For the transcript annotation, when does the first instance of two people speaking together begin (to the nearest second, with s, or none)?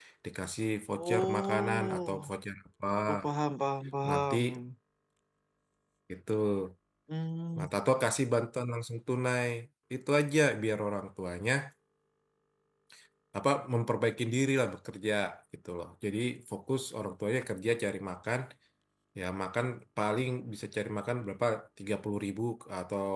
1 s